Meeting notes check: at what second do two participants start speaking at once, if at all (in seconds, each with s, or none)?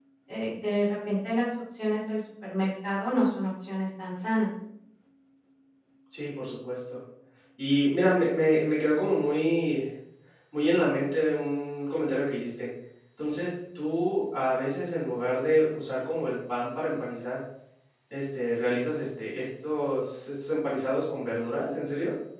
none